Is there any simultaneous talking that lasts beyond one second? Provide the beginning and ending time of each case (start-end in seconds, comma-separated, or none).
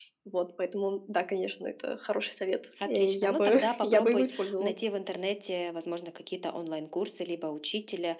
2.9-4.7